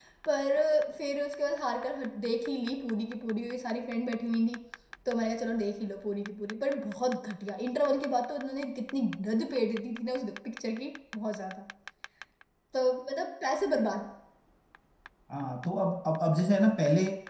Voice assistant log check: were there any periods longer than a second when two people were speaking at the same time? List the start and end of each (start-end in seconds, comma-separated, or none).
none